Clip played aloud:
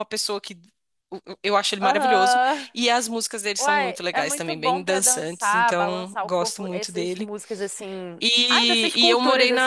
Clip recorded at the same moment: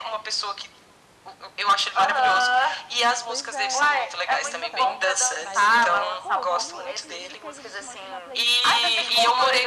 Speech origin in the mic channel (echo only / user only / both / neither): both